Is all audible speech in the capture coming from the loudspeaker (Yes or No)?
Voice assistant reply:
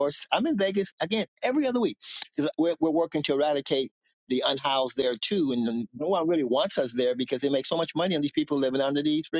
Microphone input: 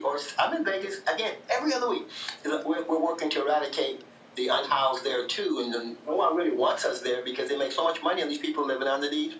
Yes